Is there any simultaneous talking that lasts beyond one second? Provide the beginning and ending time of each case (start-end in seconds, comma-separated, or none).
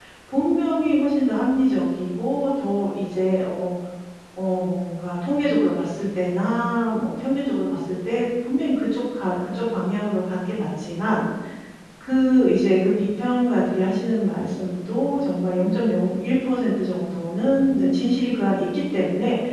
none